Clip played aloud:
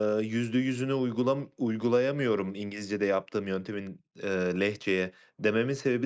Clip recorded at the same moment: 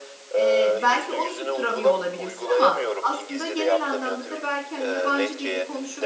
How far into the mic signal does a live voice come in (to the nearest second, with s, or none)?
0 s